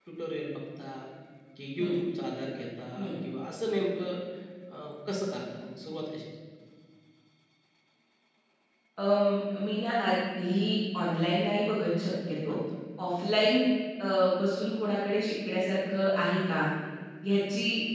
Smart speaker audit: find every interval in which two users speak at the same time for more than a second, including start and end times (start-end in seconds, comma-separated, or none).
none